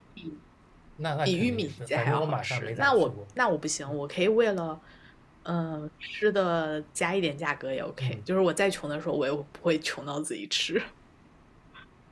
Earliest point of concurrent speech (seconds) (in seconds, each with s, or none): 1.2 s